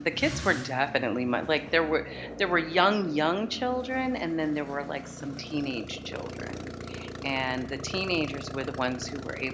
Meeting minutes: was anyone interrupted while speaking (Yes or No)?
No